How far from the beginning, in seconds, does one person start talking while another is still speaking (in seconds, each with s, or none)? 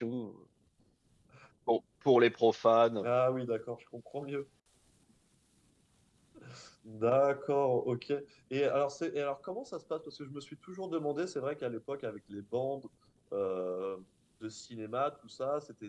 none